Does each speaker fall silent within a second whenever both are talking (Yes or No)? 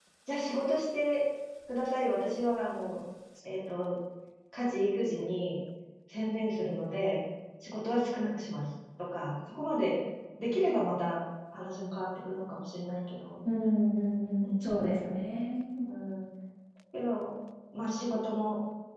Yes